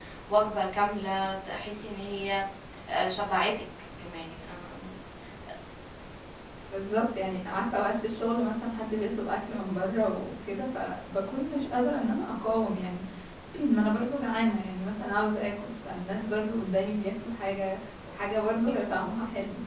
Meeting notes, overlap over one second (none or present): none